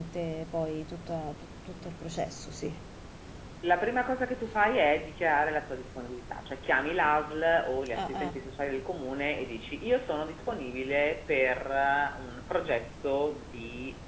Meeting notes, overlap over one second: none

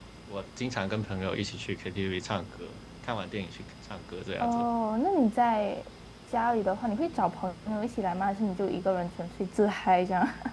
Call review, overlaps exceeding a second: none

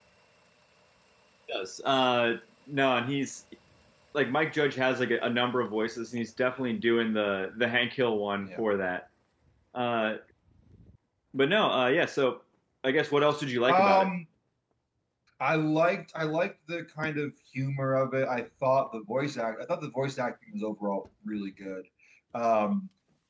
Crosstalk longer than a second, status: none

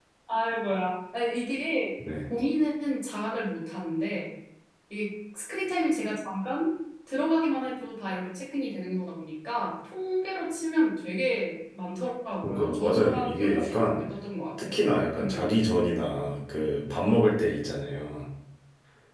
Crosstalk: present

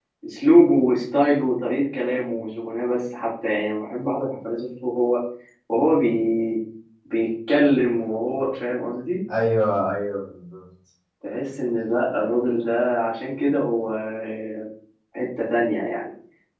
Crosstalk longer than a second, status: none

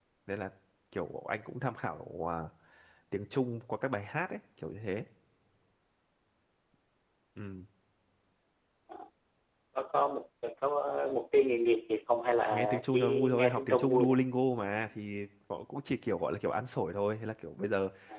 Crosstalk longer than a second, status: present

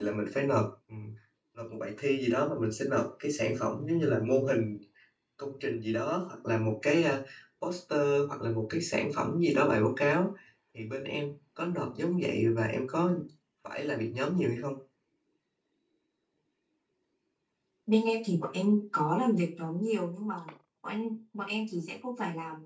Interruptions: none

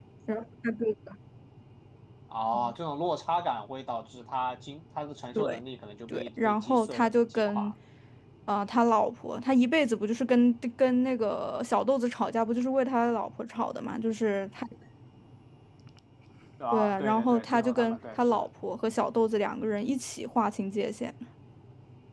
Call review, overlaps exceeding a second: present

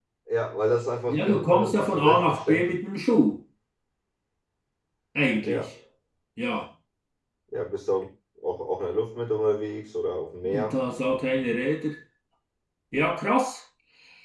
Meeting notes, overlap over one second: present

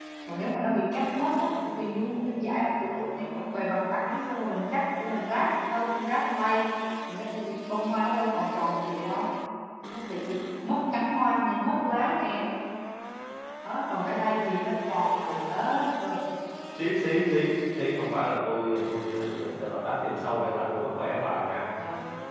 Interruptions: none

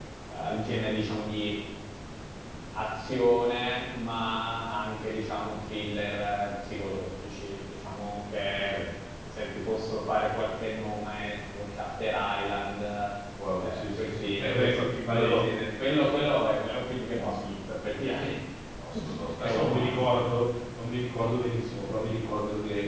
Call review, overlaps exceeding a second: present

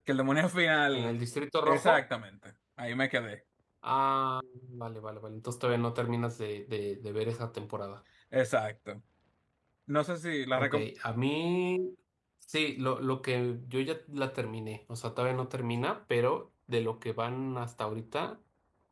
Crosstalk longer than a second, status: none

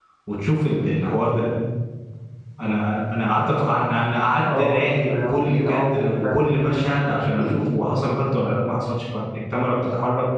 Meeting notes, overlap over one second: present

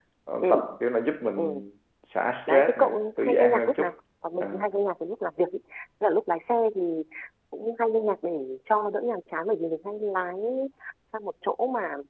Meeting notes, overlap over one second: present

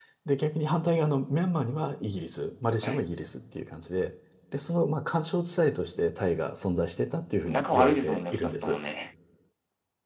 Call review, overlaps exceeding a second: present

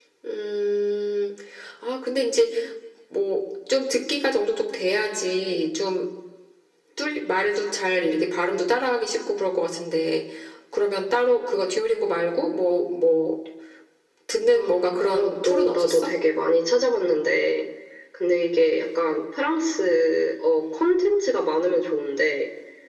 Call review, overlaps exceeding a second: present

